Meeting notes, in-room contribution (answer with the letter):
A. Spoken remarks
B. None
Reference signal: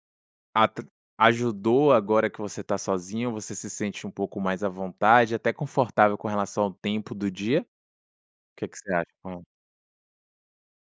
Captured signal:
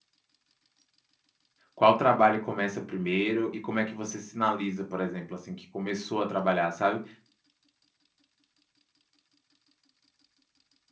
A